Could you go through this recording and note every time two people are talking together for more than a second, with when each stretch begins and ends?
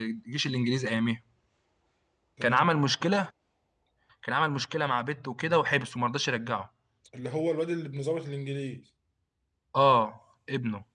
none

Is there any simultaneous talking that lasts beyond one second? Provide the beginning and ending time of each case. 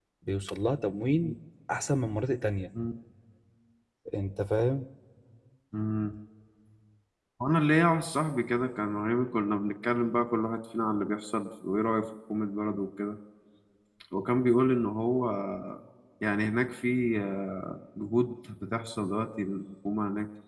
none

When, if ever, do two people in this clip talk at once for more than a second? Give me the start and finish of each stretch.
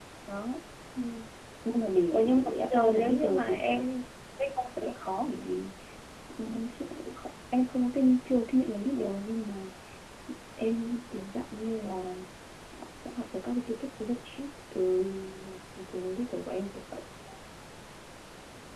2.1-3.7

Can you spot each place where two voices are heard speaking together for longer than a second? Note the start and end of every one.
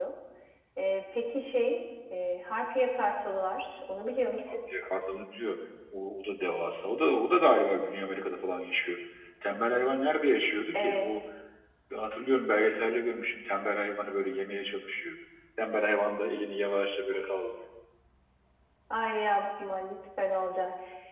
none

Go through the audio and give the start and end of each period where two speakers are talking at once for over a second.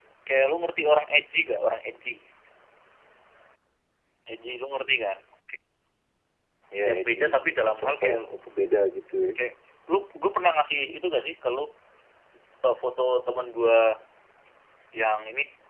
6.9-8.2

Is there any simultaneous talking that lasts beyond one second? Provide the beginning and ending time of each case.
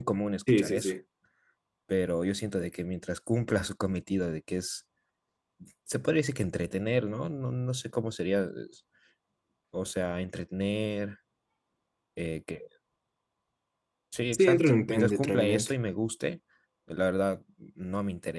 14.3-15.7

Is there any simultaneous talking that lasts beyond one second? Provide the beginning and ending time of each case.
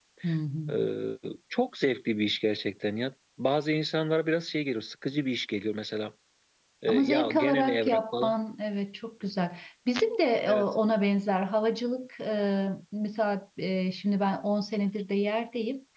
6.9-8.3

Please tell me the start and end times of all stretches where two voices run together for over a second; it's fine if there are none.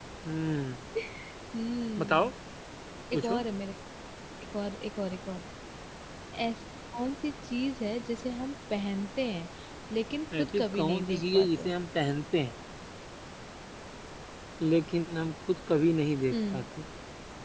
10.4-11.7

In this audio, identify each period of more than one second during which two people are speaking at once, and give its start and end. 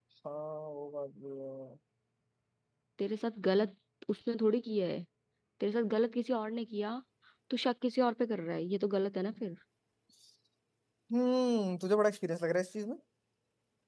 none

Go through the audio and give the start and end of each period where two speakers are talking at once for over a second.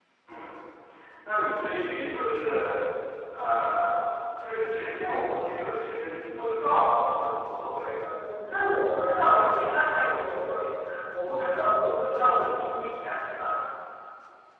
none

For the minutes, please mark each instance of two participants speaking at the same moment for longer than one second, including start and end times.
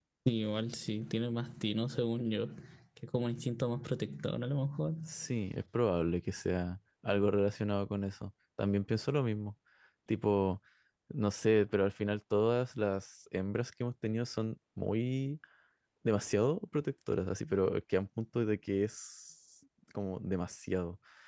none

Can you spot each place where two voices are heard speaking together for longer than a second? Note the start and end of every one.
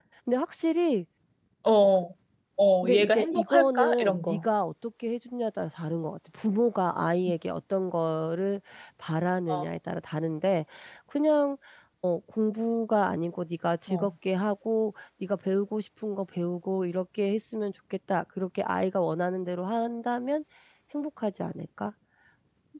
2.8-4.4

